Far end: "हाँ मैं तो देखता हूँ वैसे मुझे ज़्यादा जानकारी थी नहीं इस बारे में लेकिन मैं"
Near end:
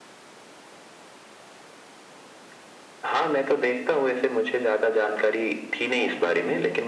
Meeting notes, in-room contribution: present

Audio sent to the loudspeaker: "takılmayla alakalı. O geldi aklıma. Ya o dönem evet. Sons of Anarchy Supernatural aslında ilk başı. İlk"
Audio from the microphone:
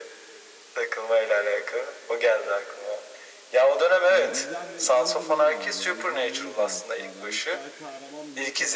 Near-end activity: present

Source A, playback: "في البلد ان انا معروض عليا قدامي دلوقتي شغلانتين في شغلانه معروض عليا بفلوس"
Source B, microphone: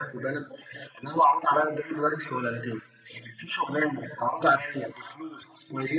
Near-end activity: none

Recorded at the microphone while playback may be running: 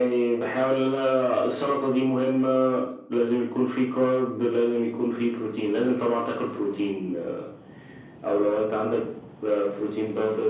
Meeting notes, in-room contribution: none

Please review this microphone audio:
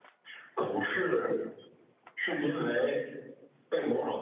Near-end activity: none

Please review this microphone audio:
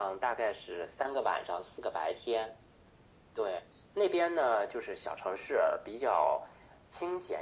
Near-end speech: none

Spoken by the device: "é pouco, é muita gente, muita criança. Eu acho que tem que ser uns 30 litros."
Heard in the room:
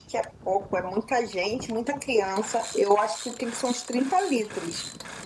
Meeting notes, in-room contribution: none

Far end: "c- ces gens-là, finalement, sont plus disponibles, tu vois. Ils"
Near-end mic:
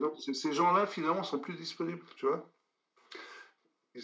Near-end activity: none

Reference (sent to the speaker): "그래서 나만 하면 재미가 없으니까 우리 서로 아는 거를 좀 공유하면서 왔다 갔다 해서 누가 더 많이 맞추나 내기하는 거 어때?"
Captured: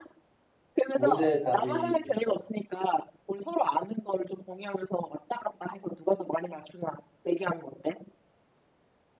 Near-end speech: present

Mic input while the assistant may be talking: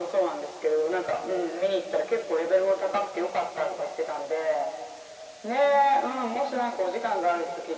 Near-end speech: none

